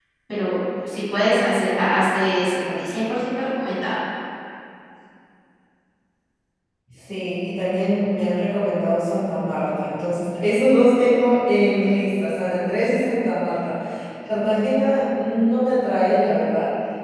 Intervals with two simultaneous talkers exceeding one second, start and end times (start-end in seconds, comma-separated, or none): none